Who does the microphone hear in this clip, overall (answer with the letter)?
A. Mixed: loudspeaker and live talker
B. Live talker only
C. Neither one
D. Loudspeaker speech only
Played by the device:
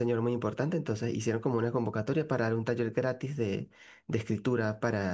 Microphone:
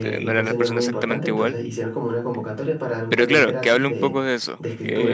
A